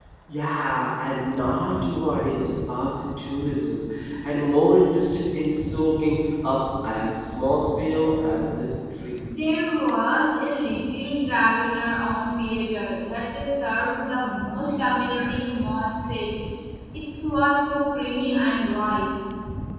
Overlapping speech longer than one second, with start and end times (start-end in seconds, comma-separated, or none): none